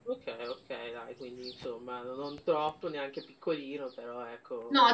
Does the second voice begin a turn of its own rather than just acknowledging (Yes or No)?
Yes